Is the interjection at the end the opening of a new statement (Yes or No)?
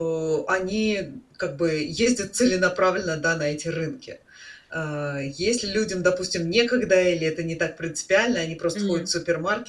No